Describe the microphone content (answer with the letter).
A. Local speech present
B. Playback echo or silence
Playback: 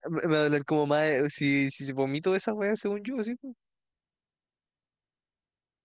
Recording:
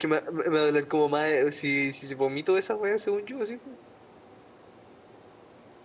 B